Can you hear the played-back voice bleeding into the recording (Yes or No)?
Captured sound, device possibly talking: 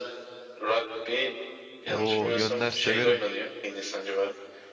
Yes